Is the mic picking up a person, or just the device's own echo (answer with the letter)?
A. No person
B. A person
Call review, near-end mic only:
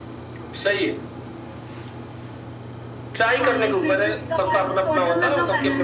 B